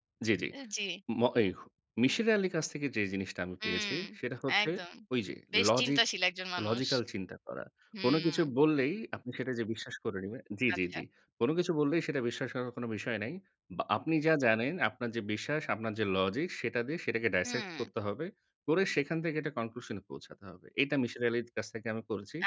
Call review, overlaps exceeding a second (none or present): none